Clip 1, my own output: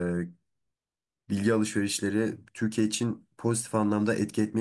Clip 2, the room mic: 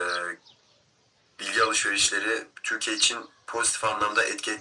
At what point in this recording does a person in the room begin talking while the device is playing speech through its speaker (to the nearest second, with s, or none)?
none